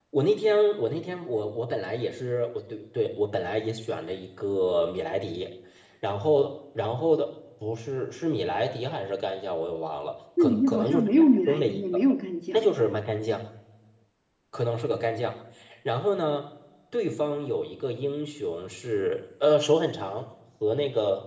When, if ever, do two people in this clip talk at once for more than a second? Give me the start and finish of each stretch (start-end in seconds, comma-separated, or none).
10.4-12.0